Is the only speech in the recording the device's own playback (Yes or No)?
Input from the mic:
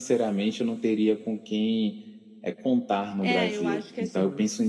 No